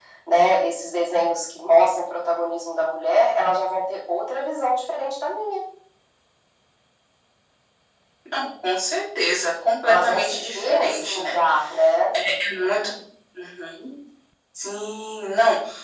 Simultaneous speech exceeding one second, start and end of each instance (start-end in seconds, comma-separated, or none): 9.9-11.4